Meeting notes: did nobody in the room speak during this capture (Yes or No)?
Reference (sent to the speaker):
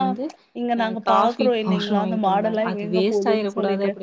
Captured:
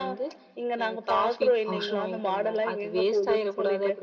Yes